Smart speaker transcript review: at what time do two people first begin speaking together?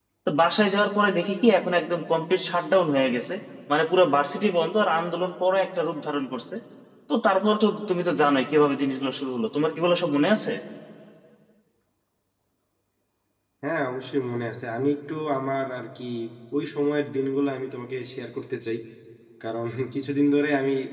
none

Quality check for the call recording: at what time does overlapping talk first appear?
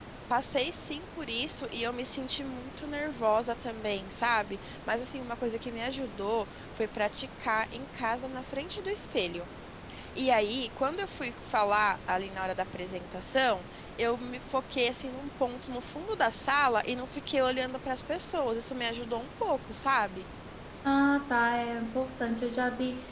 none

